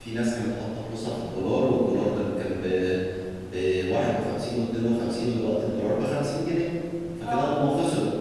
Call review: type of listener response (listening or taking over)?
listening